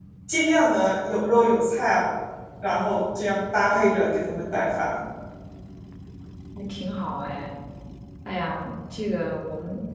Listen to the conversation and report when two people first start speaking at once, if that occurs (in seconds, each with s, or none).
none